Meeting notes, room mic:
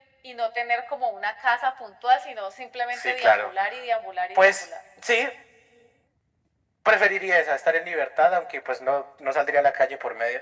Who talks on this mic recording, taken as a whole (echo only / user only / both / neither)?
echo only